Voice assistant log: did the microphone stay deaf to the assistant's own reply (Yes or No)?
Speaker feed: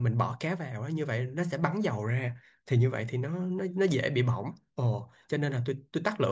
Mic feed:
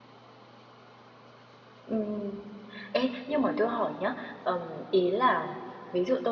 Yes